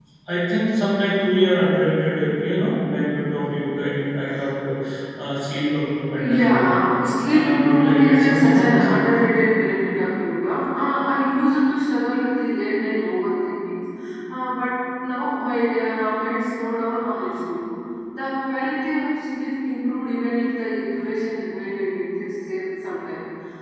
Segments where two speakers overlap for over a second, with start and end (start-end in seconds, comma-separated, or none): 7.3-8.9